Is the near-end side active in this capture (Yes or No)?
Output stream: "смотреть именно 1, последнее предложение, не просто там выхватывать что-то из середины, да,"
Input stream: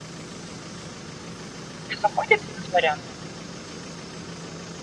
Yes